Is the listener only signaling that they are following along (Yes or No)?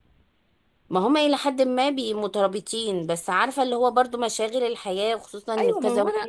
No